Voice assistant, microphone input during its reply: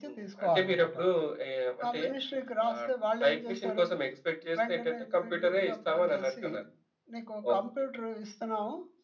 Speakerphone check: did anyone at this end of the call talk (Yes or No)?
No